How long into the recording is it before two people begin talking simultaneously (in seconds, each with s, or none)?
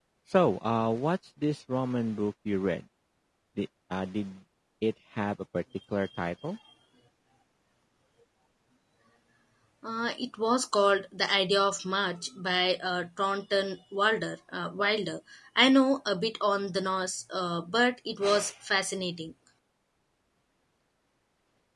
none